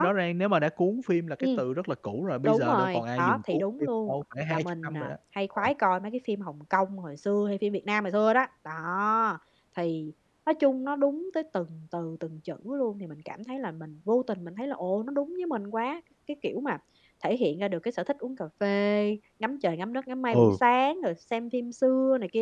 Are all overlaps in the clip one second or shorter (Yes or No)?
No